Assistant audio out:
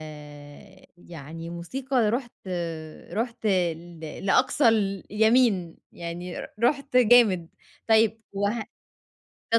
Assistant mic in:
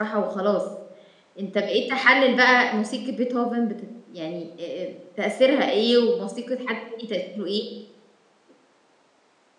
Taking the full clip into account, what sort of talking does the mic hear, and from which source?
user only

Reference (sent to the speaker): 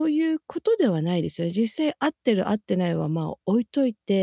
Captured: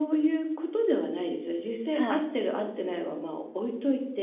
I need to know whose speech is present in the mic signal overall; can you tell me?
both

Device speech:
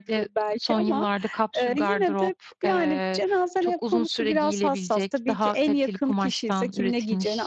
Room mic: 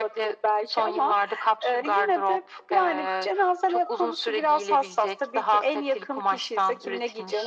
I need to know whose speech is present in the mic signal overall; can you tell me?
echo only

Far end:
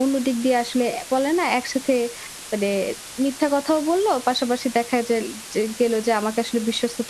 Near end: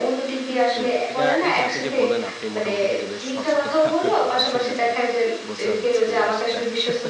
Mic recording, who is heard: both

